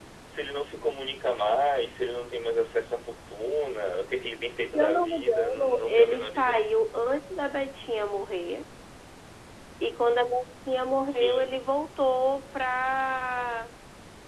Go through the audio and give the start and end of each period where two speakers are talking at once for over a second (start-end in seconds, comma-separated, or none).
4.7-6.5